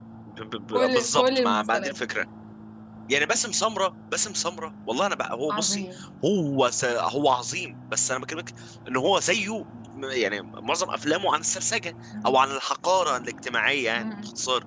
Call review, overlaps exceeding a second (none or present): present